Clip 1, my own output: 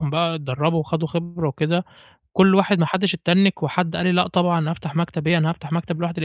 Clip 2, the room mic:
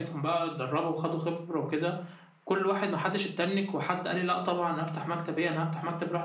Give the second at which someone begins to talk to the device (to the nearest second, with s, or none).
none